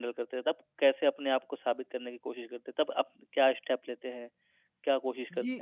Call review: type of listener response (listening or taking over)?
taking over